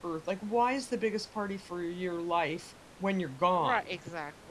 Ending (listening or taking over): taking over